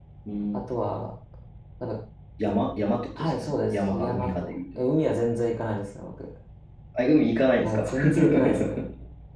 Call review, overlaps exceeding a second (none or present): present